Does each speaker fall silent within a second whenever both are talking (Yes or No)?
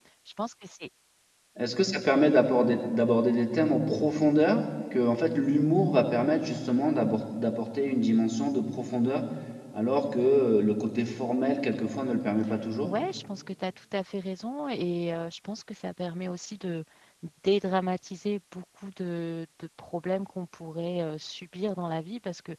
Yes